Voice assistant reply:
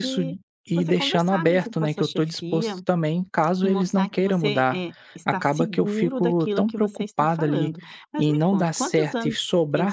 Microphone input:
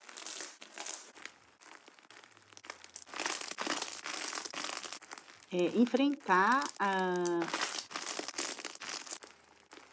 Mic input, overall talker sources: user only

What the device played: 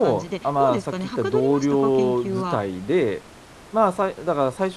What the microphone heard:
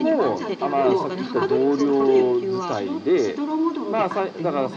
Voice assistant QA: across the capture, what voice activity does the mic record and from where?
both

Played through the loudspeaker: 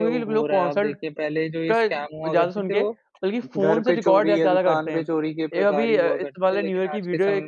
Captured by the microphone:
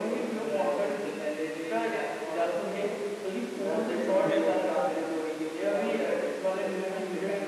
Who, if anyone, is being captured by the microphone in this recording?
both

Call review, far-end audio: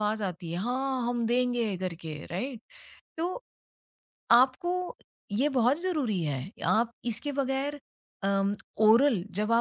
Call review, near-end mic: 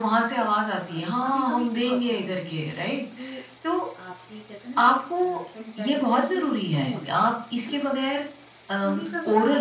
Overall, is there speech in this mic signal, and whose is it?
both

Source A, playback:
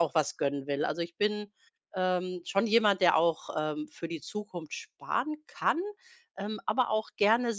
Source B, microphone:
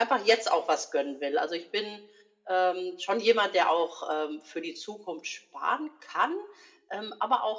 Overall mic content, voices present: echo only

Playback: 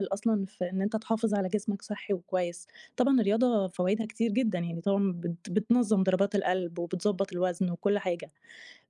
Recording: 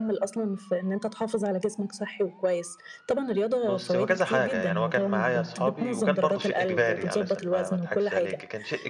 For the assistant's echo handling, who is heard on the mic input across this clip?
both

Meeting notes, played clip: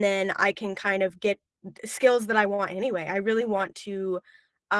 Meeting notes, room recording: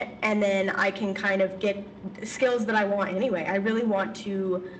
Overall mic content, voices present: echo only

